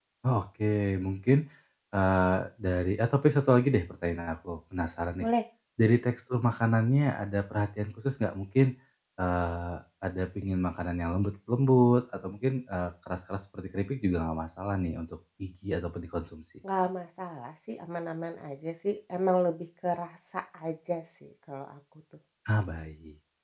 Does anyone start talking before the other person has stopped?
No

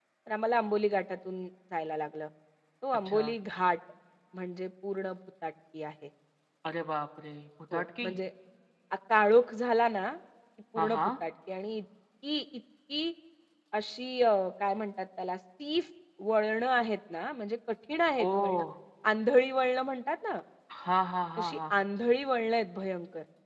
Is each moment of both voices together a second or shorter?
Yes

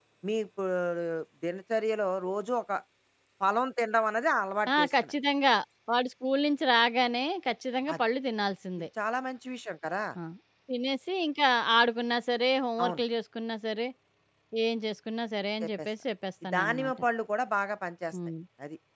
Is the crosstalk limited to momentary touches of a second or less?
Yes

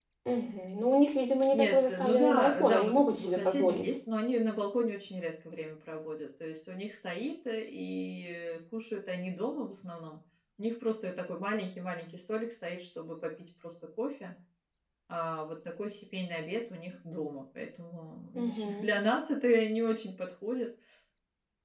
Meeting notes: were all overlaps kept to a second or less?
No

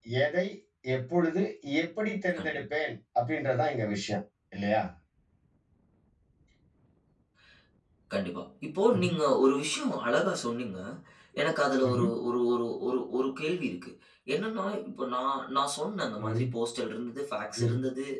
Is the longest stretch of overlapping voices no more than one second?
Yes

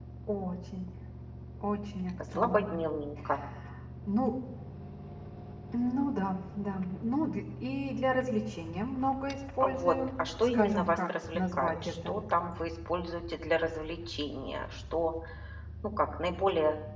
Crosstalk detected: Yes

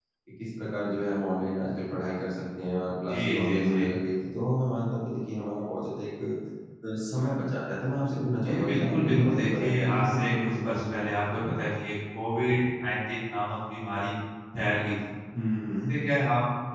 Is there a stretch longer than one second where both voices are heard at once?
Yes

